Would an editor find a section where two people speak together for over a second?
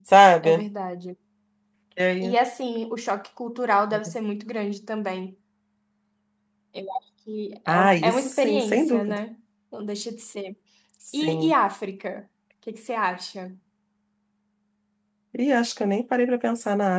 Yes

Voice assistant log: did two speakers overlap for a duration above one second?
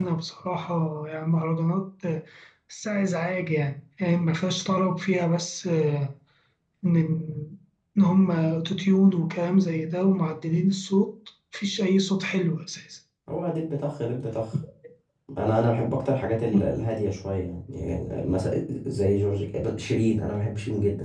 No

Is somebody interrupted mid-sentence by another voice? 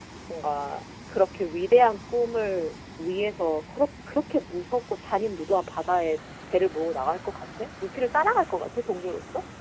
No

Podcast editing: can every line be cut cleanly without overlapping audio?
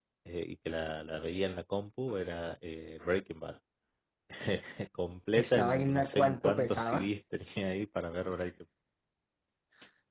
No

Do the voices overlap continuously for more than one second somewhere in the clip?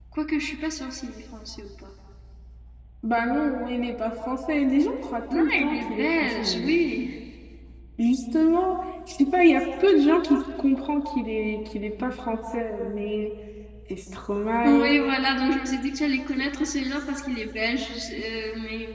Yes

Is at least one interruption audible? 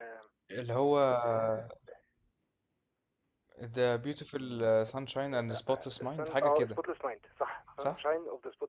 Yes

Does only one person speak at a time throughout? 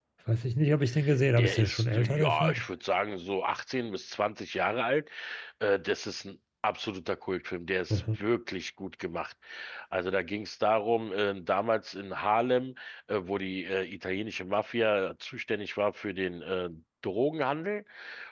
No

